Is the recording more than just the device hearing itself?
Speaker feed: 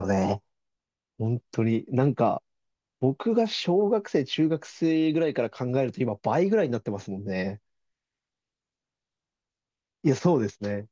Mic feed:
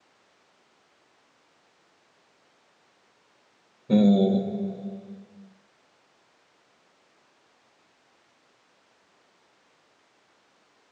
Yes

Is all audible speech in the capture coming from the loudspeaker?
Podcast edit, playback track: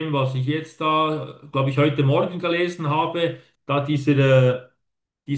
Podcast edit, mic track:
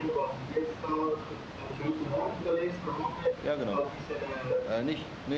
No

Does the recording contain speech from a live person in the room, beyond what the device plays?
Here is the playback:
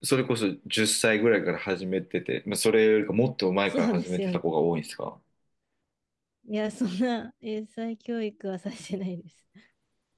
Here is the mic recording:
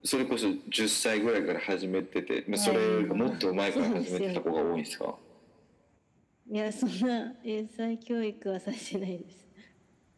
Yes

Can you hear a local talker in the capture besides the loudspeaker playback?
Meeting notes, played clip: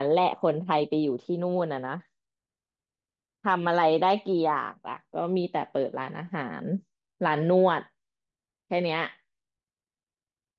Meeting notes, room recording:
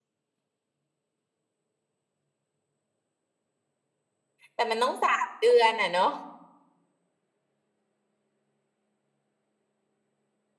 Yes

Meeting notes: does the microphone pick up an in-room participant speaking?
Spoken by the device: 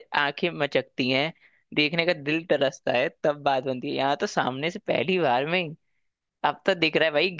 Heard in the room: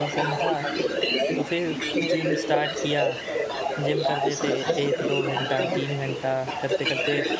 Yes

